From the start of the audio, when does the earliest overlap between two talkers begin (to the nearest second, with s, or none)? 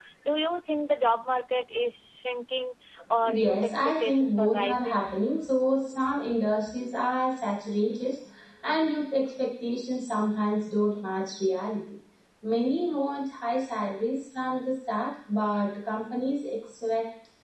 3 s